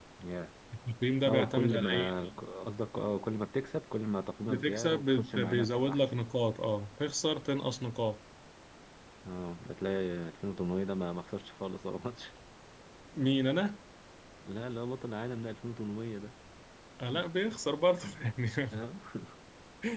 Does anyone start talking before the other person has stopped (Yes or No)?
Yes